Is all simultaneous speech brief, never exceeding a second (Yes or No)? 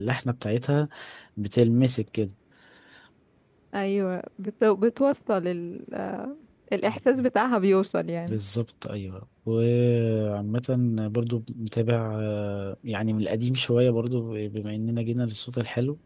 Yes